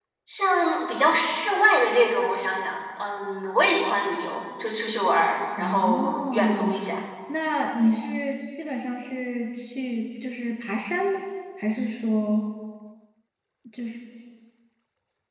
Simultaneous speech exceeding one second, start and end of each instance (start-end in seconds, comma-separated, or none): 5.6-6.8